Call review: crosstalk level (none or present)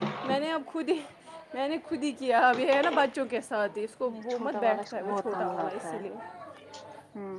present